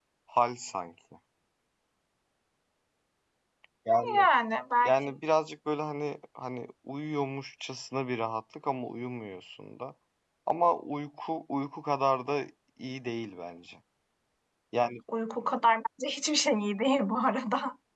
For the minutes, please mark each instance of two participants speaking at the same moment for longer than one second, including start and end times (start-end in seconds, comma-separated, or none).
none